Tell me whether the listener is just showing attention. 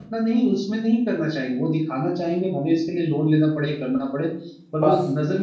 Yes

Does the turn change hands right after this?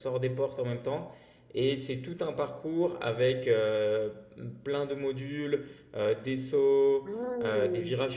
No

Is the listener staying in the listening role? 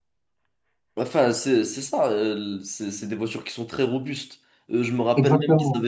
Yes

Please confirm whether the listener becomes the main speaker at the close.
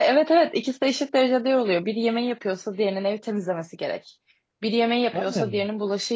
No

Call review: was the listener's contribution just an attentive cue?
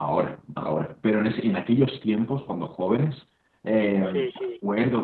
Yes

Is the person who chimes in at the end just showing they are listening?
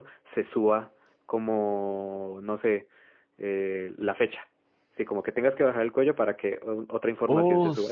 No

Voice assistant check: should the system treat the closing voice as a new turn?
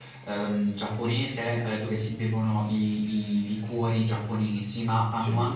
No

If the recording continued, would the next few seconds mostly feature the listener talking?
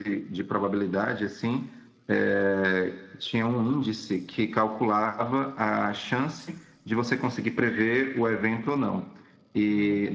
No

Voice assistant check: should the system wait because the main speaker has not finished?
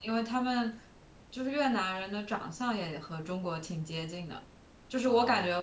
Yes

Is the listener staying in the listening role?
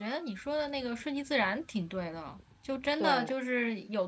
Yes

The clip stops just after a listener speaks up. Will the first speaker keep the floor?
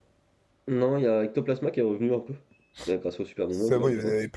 No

